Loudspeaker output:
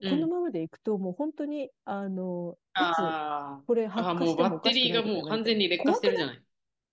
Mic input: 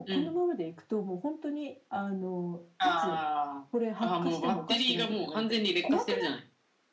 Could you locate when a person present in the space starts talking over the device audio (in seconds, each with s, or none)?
none